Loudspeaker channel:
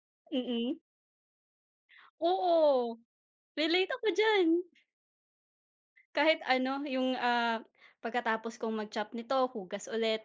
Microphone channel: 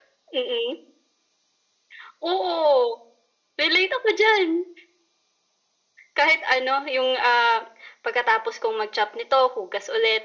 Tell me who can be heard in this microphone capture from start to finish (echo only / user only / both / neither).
echo only